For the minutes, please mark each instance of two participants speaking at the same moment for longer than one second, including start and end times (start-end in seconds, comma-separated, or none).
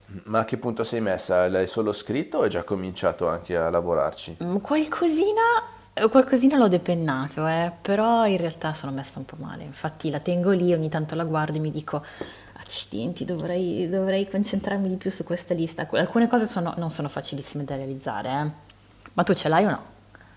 none